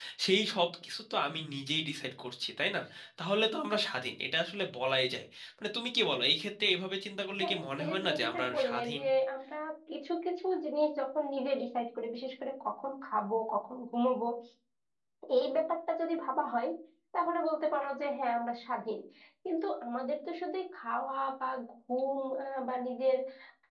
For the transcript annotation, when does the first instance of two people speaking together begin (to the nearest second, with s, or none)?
7 s